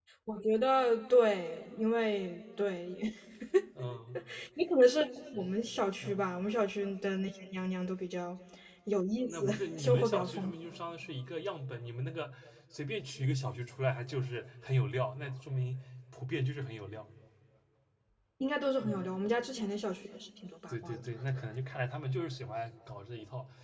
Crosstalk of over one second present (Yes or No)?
Yes